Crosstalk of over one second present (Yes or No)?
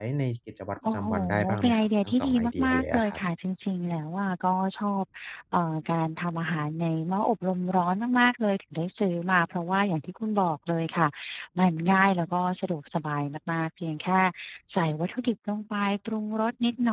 Yes